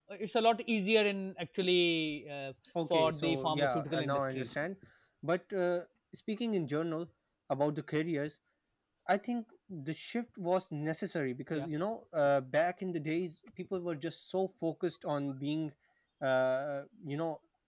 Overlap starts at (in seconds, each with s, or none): 2.8 s